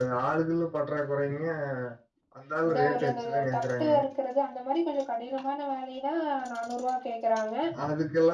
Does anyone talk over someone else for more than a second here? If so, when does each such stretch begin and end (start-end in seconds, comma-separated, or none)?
2.7-3.9